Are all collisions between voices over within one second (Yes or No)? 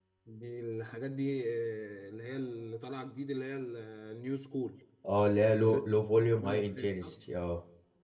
No